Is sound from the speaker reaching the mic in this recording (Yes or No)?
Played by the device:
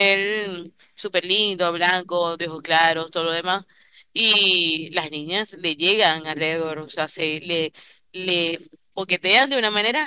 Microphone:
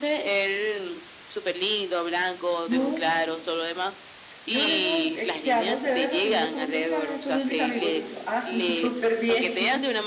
Yes